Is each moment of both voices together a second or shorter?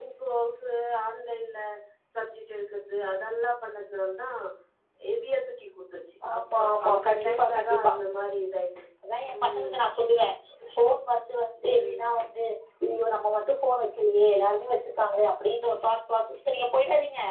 No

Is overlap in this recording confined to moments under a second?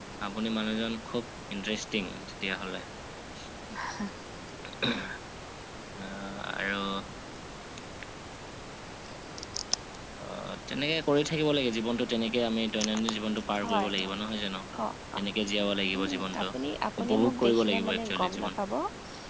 No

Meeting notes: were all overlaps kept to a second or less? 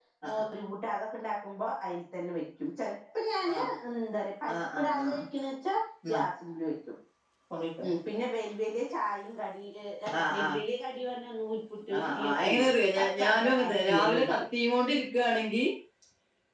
No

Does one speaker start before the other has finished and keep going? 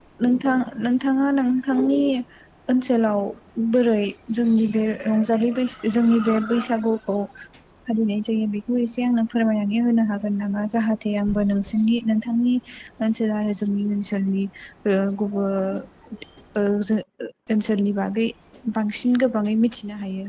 No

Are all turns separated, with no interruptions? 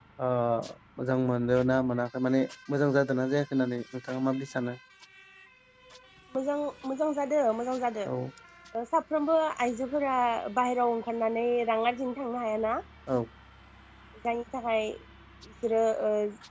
Yes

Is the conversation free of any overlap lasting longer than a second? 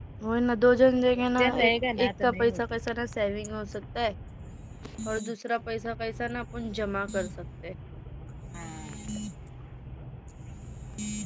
No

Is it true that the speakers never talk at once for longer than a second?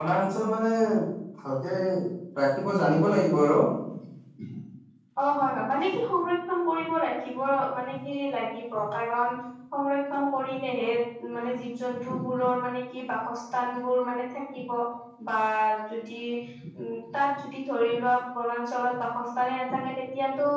Yes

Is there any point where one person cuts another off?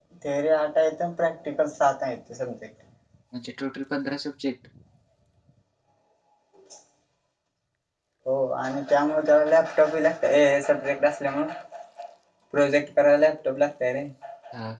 No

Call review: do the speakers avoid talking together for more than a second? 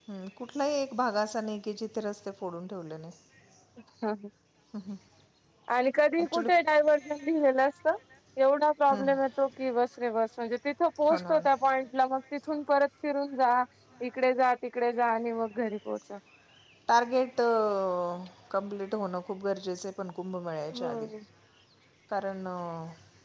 Yes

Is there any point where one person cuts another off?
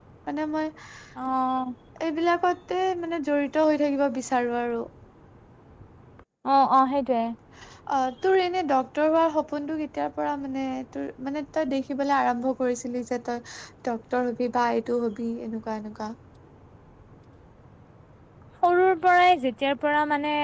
No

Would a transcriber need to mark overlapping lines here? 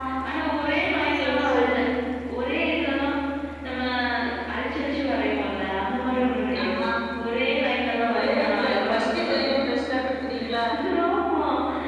Yes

